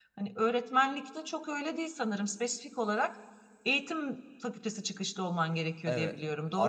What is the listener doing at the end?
taking over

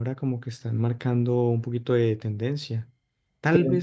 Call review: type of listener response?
listening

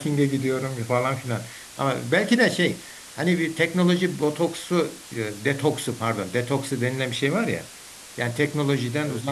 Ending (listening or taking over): listening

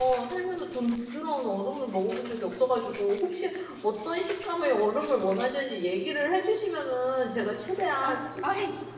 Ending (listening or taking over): taking over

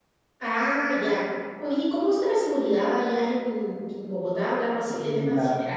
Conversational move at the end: taking over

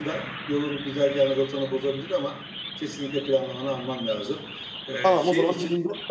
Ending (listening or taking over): taking over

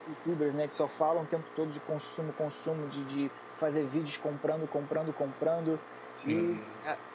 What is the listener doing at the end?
listening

